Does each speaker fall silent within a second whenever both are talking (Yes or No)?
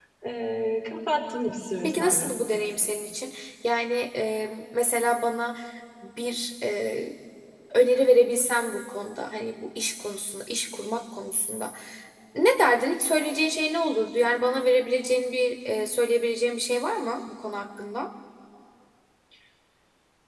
Yes